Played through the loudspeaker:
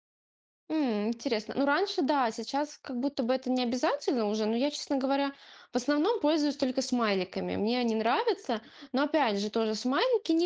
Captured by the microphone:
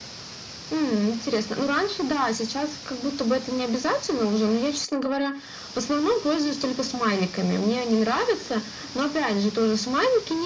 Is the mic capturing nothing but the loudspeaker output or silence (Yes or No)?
Yes